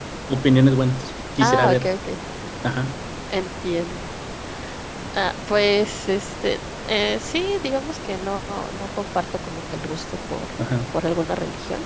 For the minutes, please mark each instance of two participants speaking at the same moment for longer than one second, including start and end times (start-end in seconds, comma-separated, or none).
none